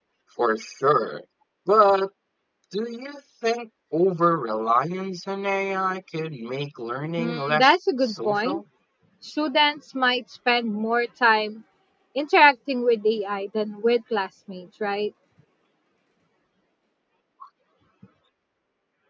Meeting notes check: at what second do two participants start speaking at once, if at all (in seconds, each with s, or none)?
7.2 s